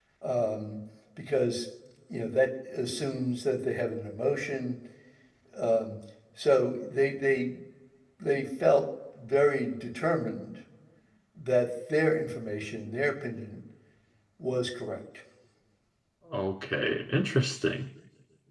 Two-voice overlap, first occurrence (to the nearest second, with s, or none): none